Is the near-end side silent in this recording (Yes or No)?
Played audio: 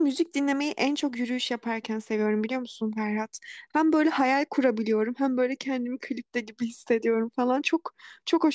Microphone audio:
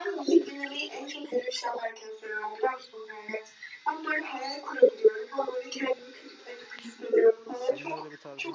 No